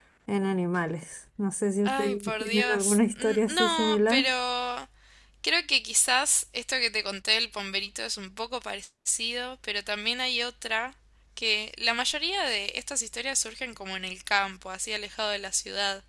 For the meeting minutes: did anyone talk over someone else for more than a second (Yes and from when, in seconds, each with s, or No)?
Yes, from 1.8 s